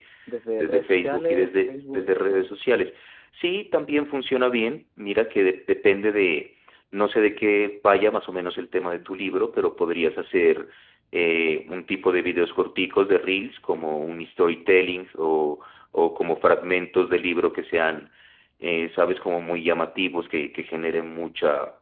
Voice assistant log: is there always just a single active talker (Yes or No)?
No